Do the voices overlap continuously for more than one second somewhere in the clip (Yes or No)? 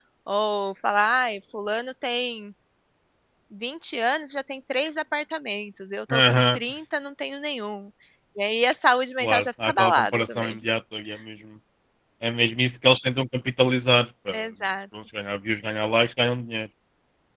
Yes